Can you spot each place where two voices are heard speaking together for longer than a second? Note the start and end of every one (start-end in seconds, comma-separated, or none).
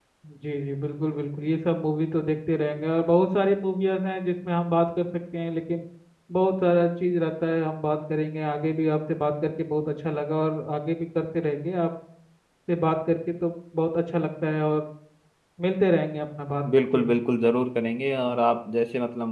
none